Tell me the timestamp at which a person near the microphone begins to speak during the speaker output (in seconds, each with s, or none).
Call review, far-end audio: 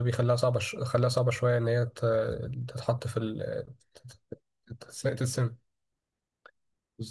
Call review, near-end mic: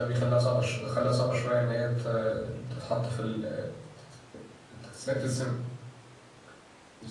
none